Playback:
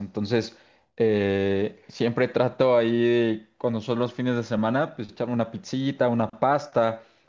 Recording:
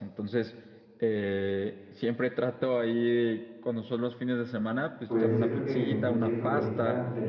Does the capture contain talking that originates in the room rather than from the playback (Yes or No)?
Yes